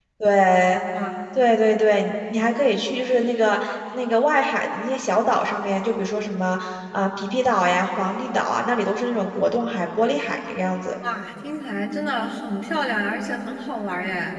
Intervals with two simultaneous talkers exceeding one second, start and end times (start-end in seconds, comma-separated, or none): none